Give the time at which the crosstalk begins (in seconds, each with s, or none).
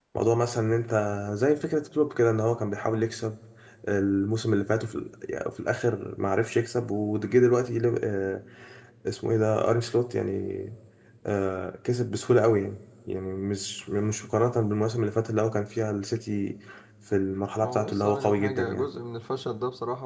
17.6 s